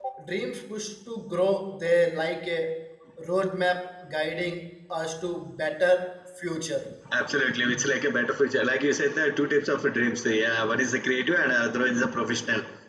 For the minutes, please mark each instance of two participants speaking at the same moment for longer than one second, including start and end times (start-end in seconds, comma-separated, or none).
none